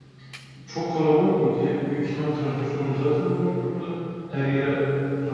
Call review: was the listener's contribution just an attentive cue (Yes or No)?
Yes